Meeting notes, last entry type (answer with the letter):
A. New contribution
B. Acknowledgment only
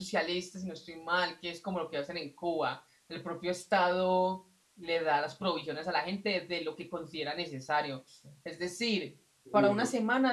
B